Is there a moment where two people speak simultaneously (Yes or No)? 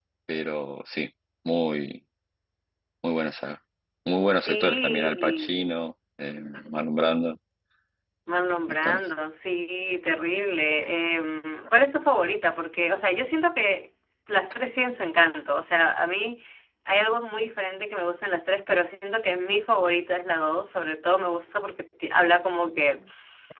Yes